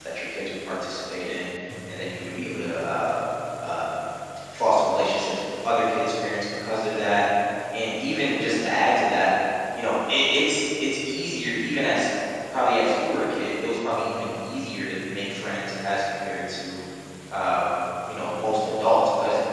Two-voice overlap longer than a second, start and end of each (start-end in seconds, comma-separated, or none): none